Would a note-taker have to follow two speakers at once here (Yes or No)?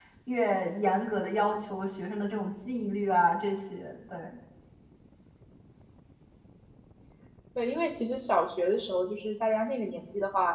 No